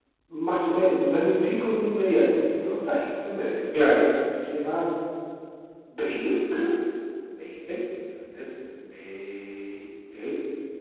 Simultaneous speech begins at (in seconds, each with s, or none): none